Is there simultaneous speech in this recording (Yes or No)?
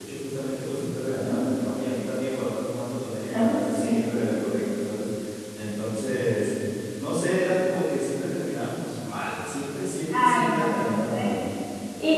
Yes